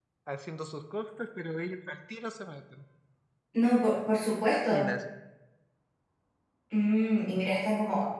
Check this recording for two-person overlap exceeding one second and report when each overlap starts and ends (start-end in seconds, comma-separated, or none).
none